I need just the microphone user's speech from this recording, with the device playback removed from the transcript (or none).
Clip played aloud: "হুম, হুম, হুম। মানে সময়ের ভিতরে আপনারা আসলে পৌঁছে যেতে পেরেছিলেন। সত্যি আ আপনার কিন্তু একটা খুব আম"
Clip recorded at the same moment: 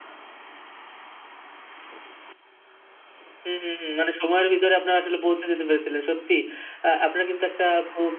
none